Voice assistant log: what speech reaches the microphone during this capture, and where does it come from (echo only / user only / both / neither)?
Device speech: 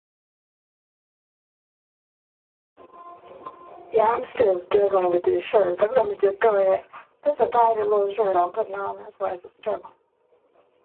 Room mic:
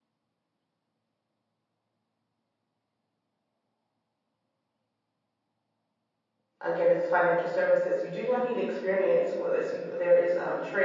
user only